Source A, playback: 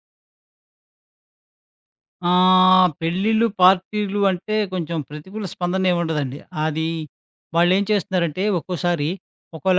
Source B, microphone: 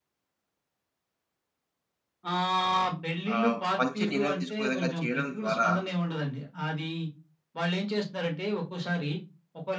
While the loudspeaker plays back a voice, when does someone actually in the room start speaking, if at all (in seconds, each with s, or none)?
3.3 s